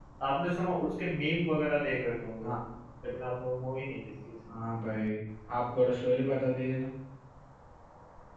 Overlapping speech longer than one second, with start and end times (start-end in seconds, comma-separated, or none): none